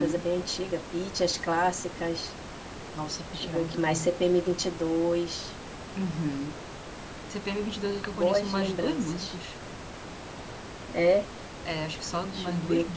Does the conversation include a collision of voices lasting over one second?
Yes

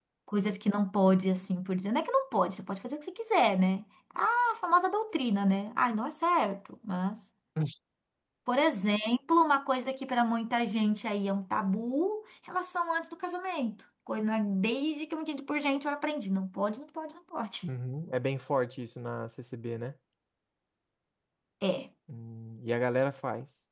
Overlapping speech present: No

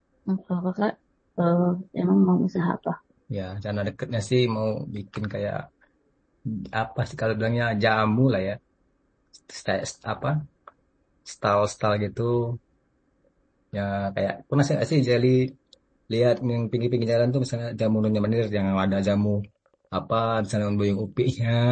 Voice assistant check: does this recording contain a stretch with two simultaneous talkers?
No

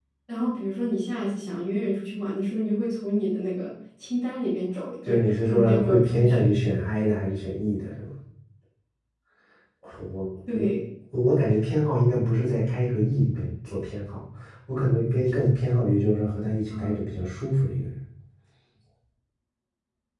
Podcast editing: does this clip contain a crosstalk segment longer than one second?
Yes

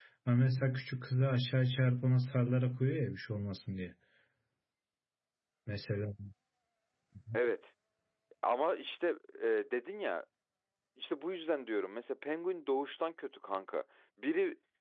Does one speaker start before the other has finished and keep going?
No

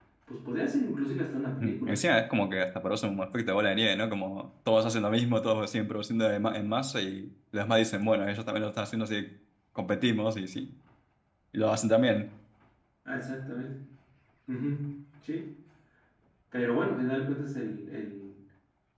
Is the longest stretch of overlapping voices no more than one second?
Yes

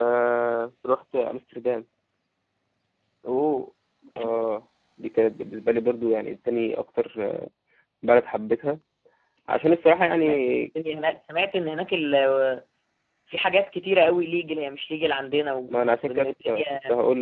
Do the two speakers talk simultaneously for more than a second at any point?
Yes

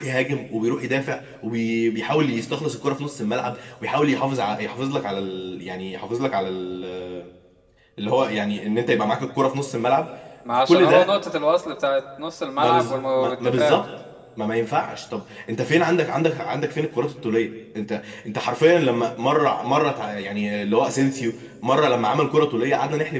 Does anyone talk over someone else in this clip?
Yes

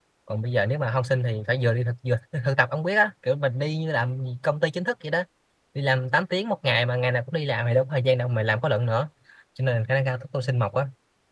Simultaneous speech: No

